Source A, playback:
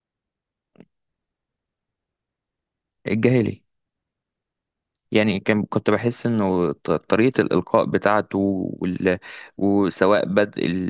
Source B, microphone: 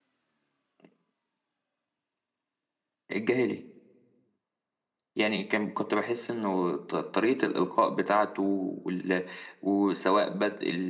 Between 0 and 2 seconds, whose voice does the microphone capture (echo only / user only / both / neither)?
neither